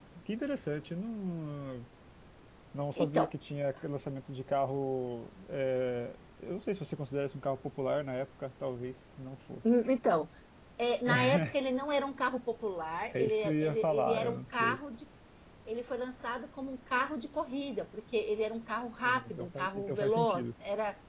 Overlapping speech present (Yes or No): Yes